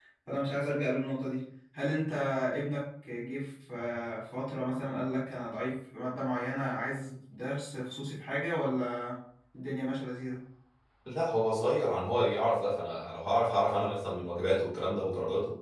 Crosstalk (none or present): none